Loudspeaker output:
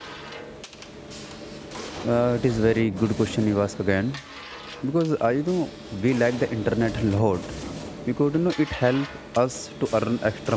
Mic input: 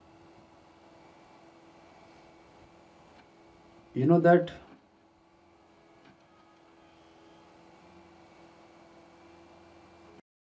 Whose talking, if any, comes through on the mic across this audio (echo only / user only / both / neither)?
user only